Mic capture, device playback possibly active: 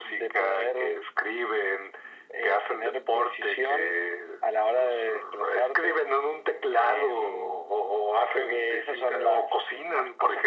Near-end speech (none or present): none